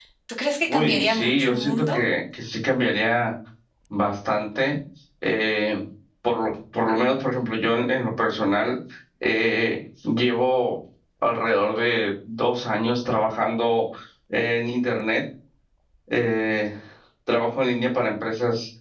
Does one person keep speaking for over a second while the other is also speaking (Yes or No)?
Yes